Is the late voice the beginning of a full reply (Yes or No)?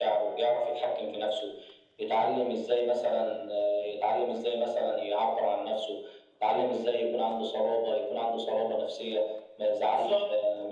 No